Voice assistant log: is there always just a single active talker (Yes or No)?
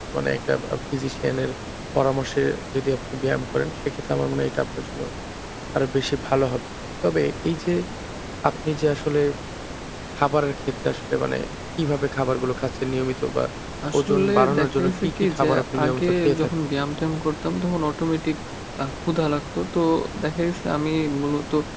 No